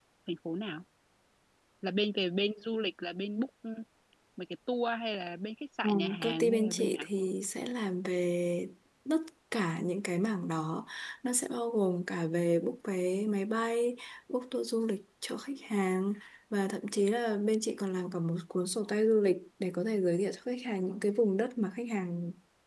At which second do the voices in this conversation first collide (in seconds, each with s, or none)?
5.8 s